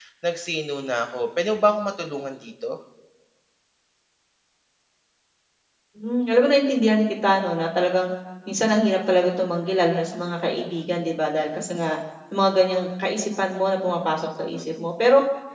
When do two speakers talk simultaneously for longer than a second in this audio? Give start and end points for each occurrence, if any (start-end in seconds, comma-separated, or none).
none